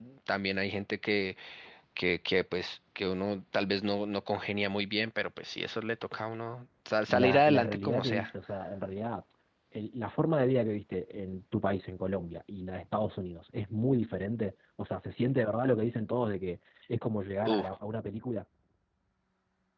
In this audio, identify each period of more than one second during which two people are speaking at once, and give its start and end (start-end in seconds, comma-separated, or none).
7.1-8.3